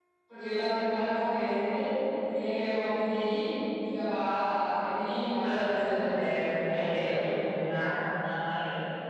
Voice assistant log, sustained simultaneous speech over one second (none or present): present